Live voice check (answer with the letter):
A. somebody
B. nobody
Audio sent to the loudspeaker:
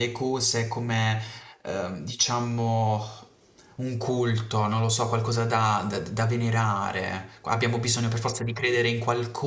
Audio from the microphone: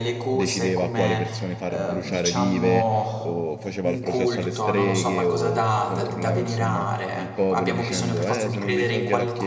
A